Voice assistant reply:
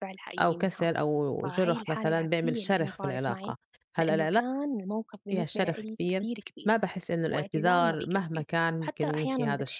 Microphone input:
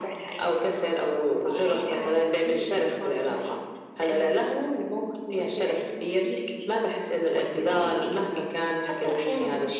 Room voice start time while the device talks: none

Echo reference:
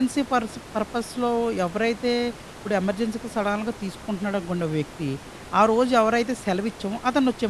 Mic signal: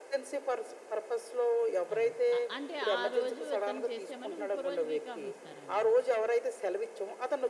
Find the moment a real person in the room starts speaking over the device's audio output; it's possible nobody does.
1.9 s

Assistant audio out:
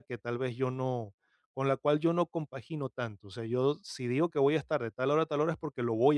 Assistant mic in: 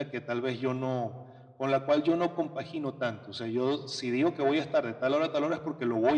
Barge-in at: none

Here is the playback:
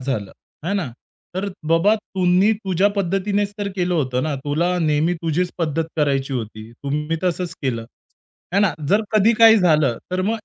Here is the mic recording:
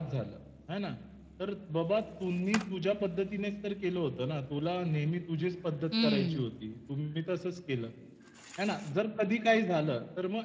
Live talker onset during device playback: 5.9 s

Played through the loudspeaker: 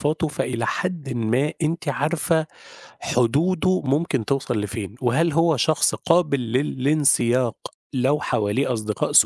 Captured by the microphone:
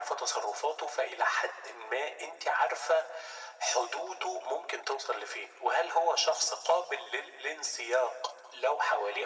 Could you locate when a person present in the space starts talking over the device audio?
none

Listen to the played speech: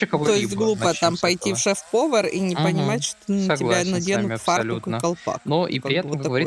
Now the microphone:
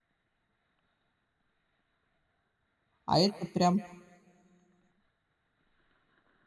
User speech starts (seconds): 3.1 s

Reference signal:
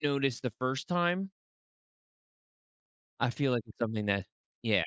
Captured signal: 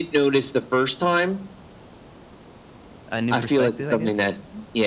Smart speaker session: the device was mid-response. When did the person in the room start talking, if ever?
3.1 s

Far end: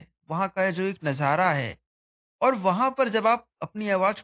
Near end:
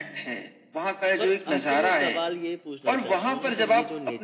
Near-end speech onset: 1.2 s

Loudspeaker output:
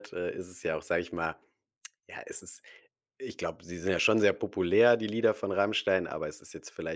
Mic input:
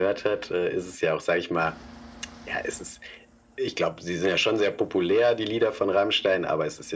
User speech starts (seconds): none

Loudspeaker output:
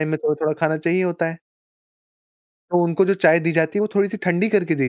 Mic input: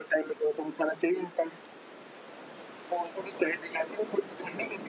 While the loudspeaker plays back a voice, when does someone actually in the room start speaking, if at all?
none

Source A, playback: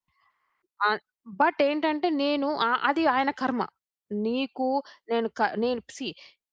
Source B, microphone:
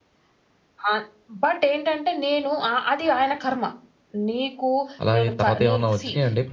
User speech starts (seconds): 5.0 s

